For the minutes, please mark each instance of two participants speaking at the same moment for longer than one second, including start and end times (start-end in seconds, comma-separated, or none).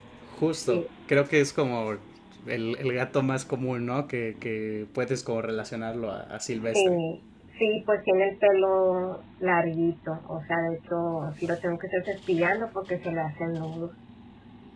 none